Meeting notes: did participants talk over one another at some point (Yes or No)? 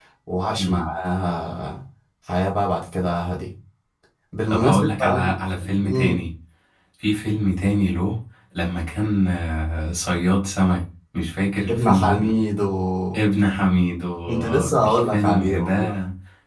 Yes